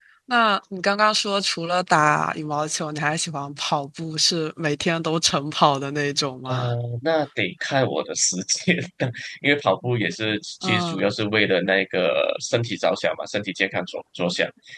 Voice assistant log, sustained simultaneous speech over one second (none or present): none